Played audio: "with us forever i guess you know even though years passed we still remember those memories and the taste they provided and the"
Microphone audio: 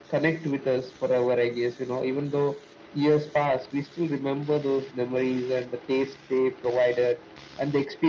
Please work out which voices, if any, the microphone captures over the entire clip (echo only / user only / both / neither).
echo only